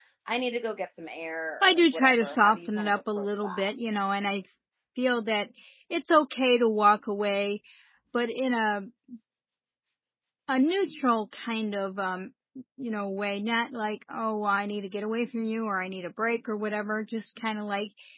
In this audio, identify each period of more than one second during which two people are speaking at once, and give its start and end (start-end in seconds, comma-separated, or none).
1.6-3.7